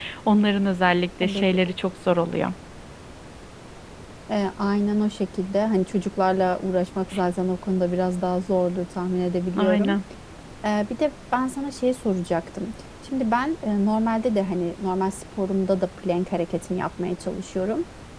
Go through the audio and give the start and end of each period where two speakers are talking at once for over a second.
none

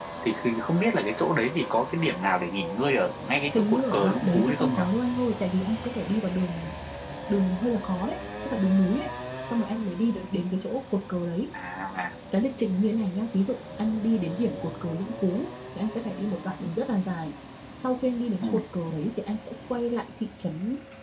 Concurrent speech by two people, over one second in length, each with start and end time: 3.5-4.8

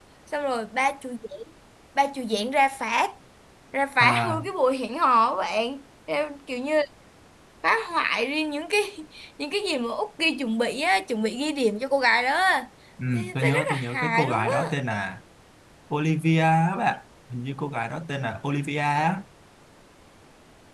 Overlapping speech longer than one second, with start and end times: 13.1-14.7

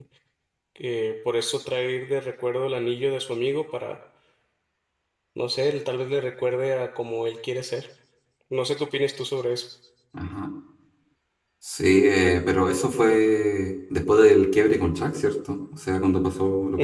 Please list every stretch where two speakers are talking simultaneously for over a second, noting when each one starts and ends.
none

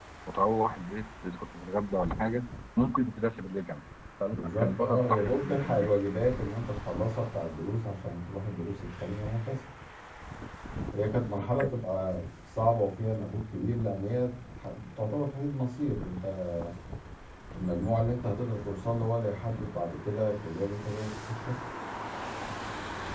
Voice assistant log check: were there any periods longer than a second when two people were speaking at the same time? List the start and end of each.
4.3-5.9

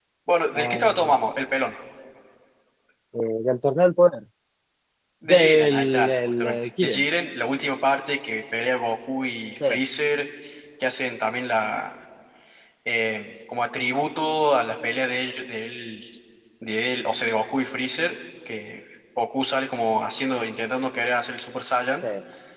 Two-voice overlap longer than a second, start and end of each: 5.3-7.0

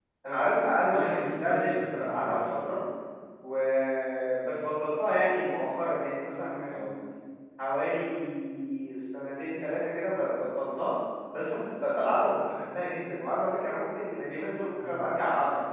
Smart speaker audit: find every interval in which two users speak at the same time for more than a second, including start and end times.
0.8-2.6

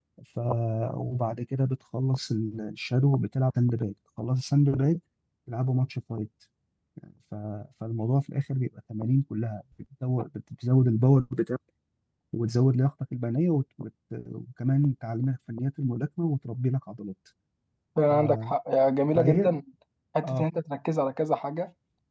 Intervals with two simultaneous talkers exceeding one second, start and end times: none

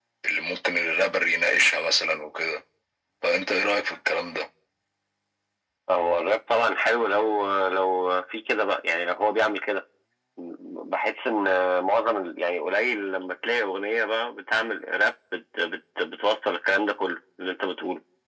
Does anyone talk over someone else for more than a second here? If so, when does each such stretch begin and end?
none

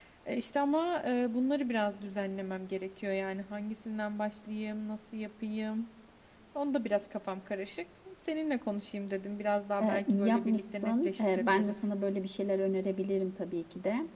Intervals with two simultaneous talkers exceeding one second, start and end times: 9.8-11.9

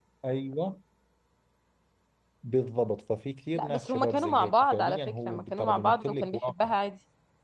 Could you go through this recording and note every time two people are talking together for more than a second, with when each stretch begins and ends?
3.5-6.7

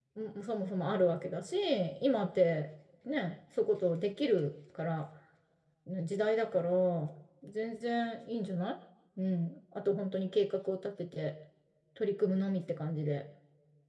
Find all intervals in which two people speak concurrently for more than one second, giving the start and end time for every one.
none

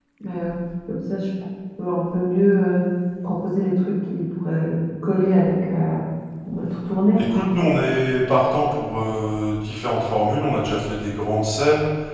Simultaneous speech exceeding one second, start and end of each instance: none

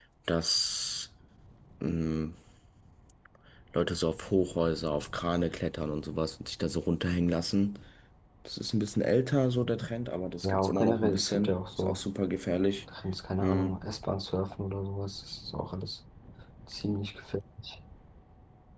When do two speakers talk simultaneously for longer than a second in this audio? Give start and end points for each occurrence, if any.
10.4-12.0

